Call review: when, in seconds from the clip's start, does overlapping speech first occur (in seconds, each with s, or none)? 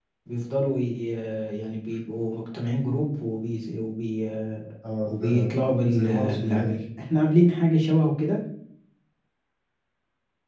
4.8 s